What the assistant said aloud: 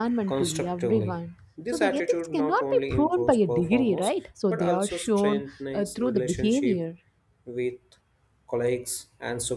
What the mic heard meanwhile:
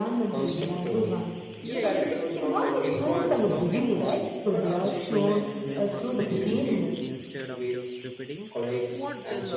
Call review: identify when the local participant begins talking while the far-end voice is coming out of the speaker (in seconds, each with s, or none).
1.6 s